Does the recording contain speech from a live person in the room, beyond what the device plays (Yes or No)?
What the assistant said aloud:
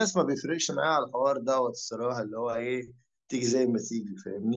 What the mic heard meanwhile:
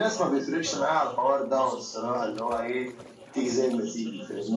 Yes